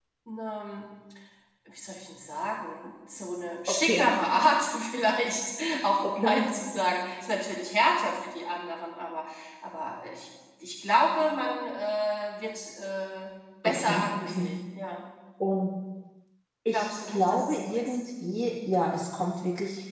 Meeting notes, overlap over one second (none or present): present